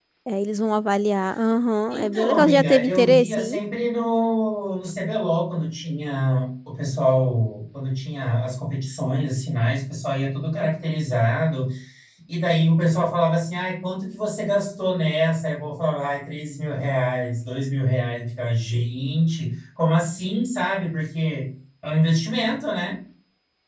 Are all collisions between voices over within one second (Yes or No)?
No